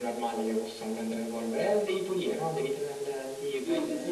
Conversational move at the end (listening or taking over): taking over